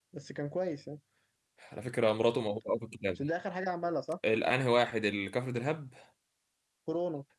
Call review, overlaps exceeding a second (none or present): none